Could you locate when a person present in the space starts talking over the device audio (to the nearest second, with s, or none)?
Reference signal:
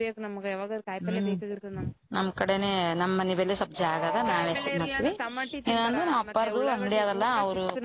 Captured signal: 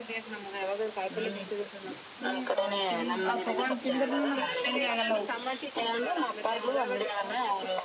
2 s